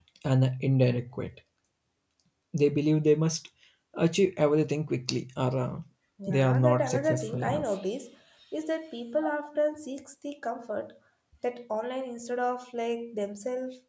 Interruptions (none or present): present